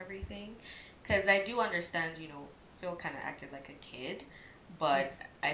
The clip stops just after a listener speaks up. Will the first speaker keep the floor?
Yes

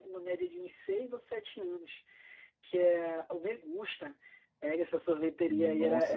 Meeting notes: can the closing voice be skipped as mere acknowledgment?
Yes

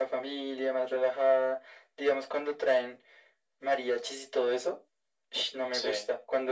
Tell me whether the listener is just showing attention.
Yes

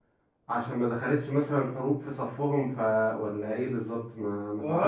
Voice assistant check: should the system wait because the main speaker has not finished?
No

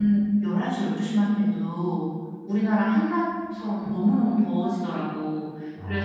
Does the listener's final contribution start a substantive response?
No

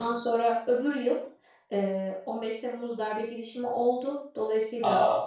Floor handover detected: No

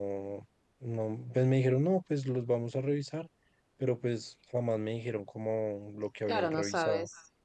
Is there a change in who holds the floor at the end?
Yes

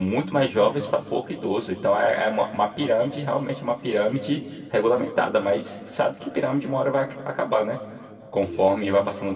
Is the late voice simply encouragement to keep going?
Yes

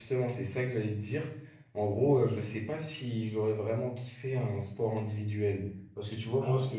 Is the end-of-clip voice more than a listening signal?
No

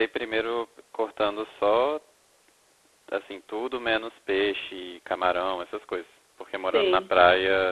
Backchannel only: Yes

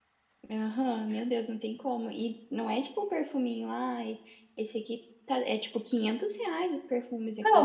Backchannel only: No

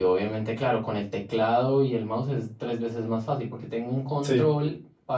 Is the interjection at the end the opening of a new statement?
No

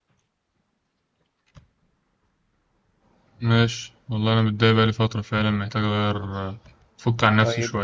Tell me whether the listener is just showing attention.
No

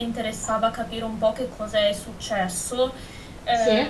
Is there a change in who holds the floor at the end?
No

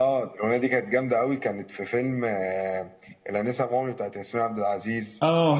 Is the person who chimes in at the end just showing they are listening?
No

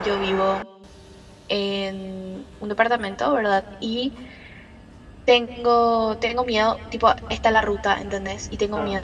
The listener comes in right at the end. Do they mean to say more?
No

